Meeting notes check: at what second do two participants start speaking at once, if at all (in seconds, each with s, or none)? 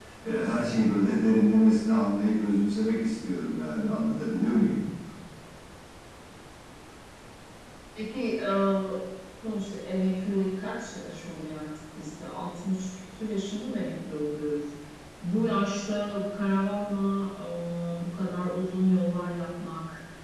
none